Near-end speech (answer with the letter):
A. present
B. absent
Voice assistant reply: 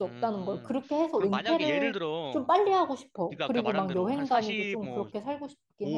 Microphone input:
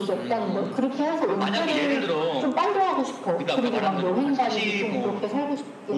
B